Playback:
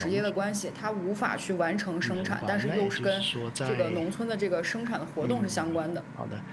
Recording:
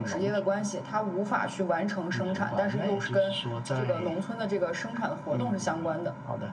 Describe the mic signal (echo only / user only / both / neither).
echo only